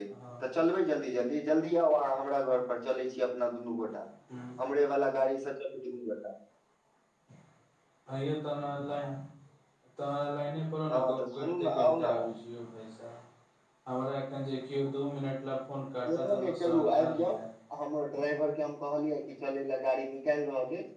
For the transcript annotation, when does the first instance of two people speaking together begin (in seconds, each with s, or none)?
10.9 s